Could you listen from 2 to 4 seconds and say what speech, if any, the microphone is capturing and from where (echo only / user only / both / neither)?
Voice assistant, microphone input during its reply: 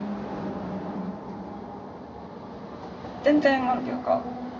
user only